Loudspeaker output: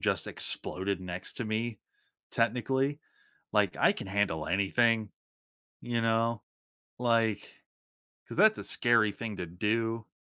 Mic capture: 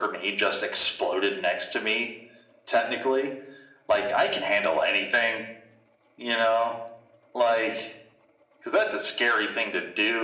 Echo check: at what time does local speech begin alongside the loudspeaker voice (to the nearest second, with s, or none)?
none